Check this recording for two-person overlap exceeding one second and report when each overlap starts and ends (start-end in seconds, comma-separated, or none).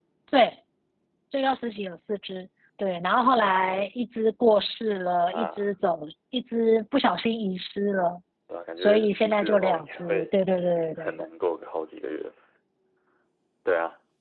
8.8-10.2